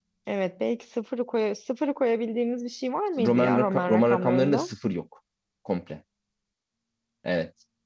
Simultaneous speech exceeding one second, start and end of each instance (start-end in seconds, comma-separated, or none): 3.2-4.7